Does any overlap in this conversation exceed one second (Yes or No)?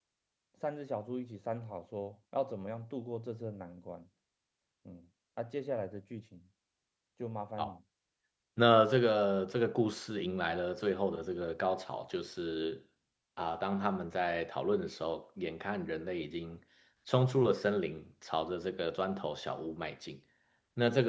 No